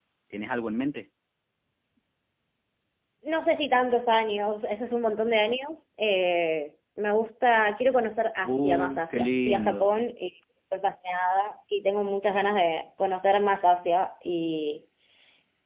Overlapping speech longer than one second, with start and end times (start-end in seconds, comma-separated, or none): 8.4-10.0